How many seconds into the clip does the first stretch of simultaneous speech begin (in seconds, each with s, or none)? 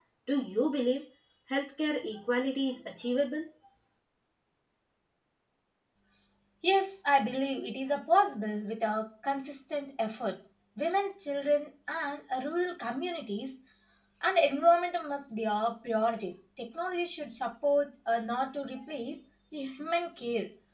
none